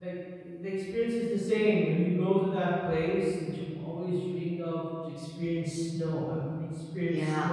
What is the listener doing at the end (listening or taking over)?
listening